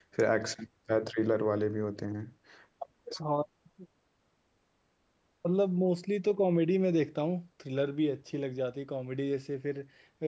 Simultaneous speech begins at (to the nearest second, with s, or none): none